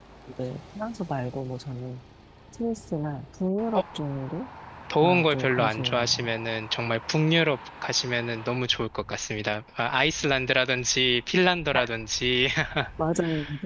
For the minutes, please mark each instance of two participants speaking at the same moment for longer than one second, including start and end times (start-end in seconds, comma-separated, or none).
5.0-6.3